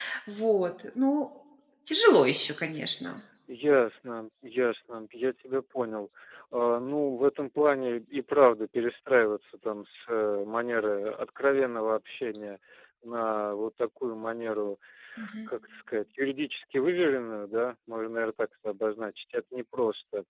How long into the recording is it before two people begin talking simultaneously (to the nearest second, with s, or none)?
none